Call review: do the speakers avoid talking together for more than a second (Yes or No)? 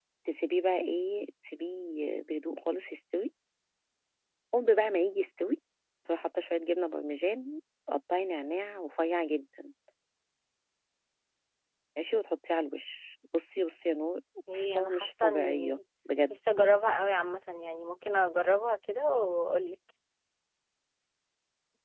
No